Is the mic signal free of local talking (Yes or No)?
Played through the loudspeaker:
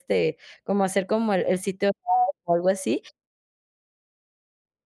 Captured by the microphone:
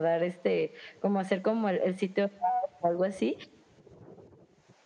Yes